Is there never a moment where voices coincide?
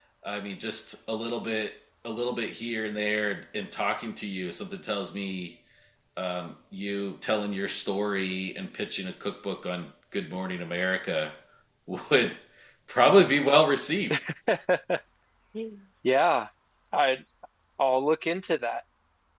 Yes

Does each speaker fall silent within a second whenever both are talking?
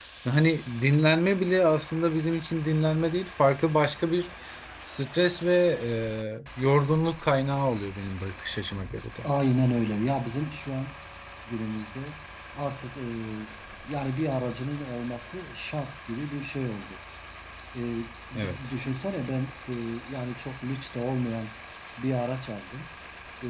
Yes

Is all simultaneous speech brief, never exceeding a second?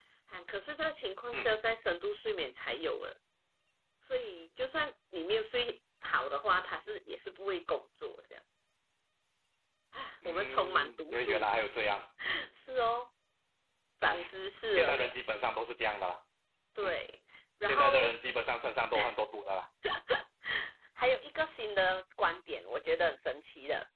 No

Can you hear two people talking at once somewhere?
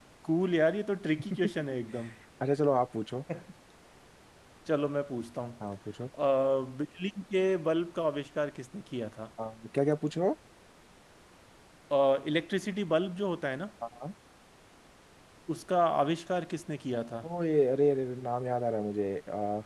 No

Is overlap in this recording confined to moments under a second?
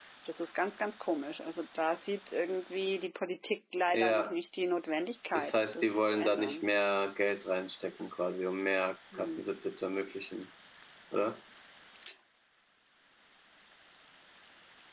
No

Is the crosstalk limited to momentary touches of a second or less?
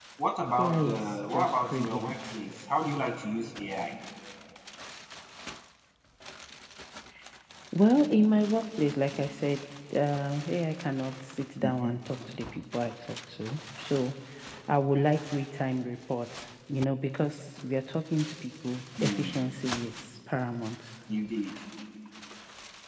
No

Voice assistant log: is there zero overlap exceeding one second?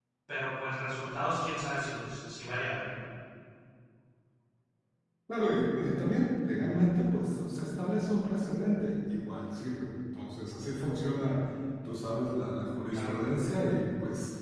Yes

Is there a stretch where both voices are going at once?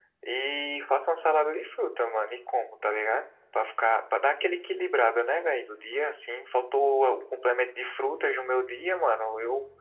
No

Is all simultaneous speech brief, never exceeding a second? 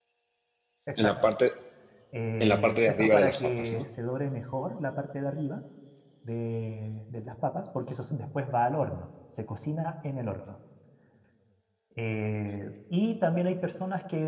No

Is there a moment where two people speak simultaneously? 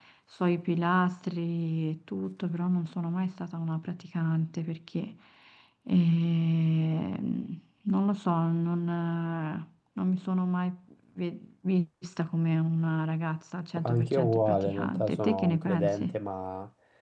Yes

